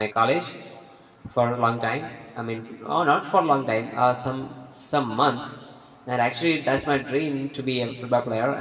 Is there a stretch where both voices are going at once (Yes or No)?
No